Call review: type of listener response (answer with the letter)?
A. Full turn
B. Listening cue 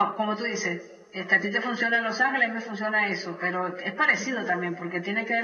B